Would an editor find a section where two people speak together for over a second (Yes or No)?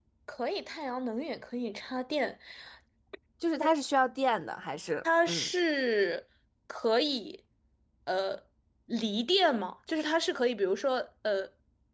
No